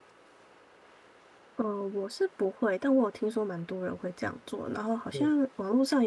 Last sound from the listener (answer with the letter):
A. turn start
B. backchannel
B